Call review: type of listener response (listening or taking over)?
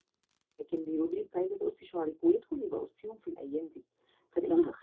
listening